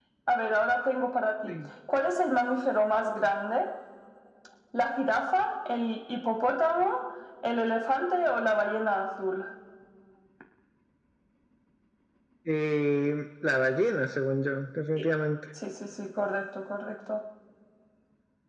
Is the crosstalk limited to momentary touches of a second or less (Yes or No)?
Yes